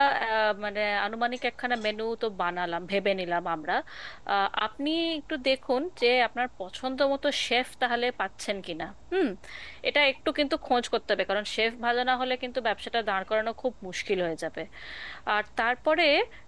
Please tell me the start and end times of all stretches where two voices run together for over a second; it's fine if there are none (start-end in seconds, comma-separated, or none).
none